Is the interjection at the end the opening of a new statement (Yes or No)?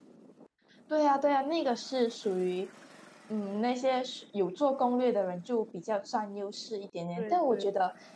No